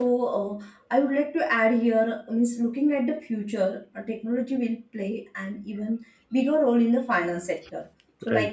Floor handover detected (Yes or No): No